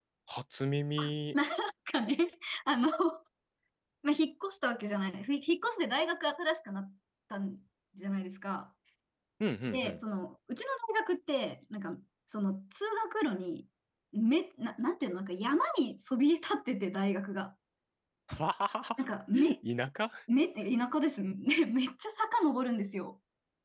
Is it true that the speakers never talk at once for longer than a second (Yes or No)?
Yes